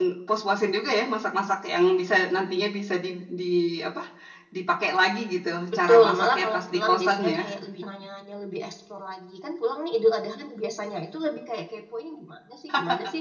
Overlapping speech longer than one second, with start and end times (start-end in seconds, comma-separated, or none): 5.7-7.4